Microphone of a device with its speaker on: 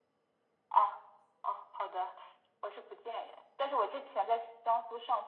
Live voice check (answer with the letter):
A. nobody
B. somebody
A